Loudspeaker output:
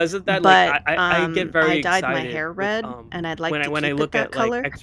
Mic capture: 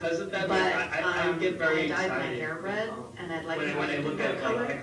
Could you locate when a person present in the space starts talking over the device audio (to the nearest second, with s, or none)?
4 s